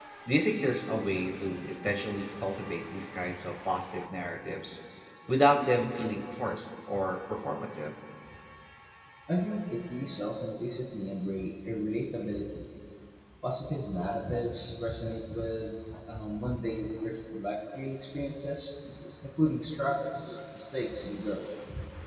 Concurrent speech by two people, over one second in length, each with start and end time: none

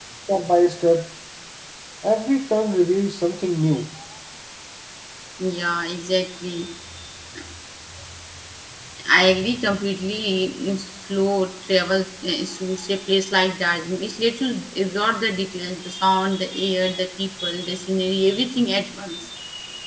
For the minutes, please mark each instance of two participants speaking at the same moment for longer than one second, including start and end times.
none

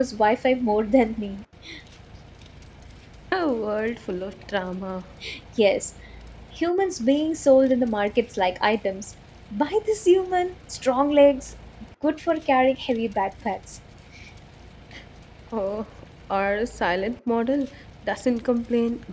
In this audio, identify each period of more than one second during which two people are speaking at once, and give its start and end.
none

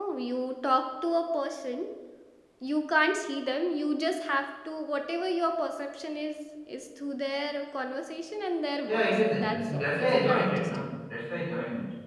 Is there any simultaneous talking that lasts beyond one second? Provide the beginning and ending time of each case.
8.9-10.9

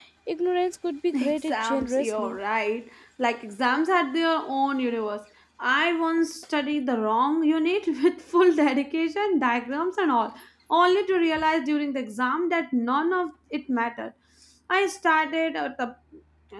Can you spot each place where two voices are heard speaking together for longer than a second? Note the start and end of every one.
1.1-2.4

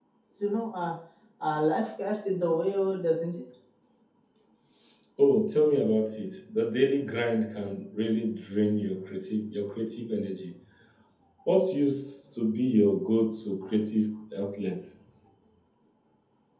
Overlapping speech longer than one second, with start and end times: none

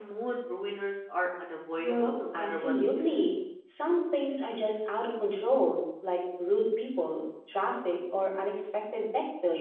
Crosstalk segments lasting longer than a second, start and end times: 1.8-3.1

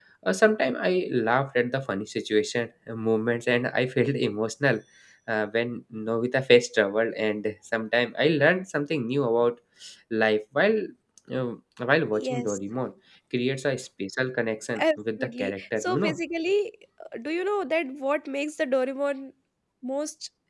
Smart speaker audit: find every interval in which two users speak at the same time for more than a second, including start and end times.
14.8-16.2

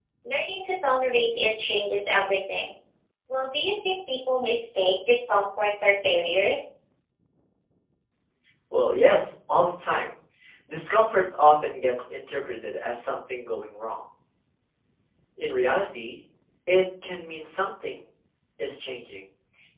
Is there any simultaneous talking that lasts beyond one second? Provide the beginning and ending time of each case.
none

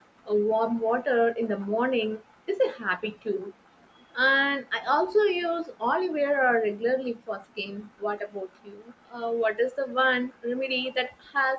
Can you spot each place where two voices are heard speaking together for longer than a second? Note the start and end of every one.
none

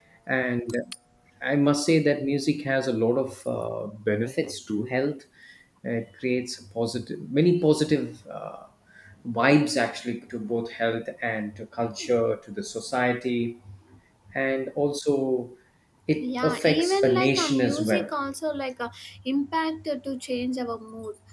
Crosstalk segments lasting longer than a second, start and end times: 16.2-18.1

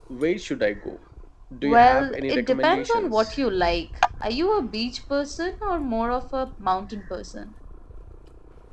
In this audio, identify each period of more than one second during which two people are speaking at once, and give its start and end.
1.6-3.4

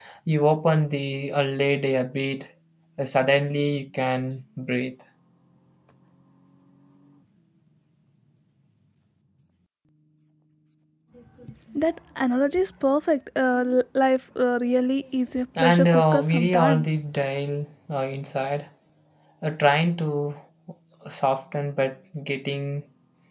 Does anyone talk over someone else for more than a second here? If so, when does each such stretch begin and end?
15.6-16.9

